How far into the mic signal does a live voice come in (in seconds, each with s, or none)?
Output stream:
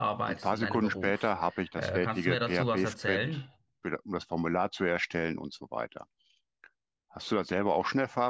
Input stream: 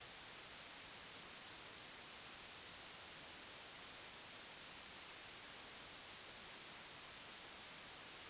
none